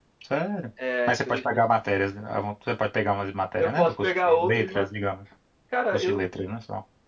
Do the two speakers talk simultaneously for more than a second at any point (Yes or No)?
Yes